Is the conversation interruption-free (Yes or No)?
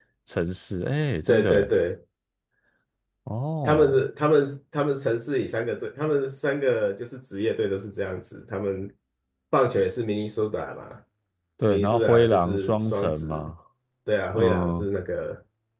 No